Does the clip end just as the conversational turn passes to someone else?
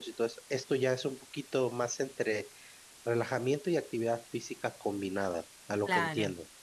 Yes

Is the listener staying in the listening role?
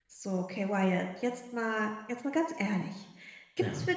Yes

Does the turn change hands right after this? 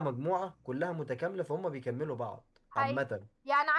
Yes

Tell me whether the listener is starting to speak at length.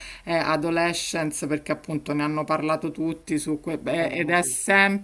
No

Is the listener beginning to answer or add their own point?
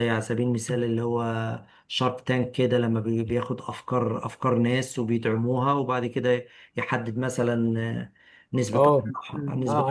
Yes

